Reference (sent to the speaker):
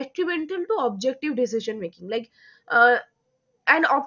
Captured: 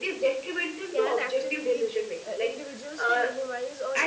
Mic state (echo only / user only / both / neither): both